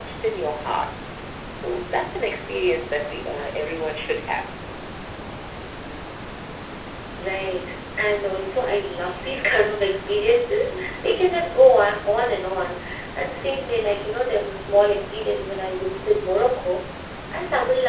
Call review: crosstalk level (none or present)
none